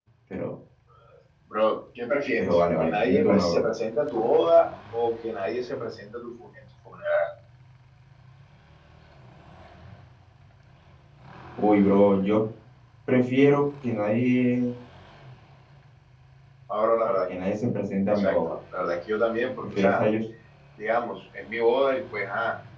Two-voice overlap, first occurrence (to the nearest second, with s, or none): 2 s